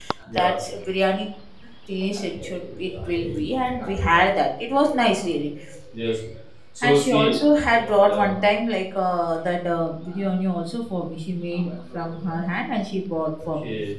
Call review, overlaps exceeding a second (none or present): none